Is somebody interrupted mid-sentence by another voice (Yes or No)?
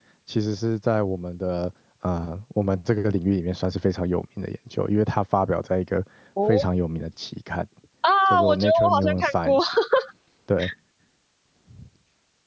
Yes